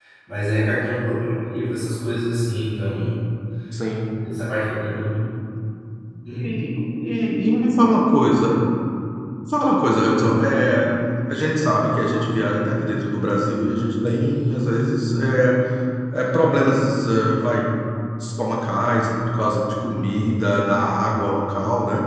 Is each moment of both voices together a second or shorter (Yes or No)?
Yes